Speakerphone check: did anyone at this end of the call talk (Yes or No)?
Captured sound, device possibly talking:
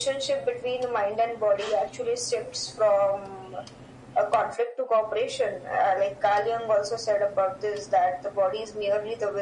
No